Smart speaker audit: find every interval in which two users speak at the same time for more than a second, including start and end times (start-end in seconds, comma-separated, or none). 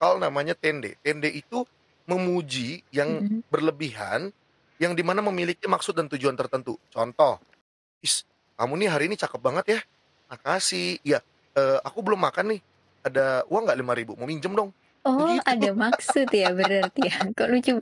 none